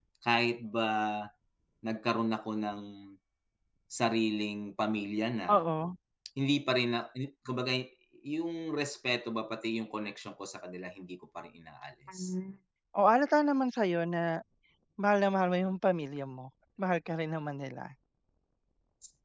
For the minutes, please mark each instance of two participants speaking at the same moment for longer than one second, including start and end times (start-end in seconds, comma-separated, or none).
none